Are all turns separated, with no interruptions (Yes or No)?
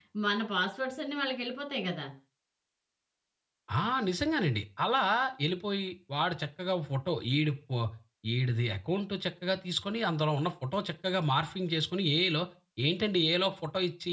Yes